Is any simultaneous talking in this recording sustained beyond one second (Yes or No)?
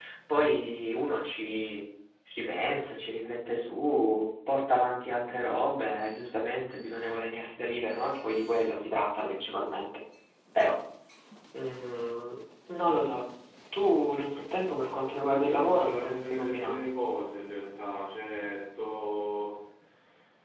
Yes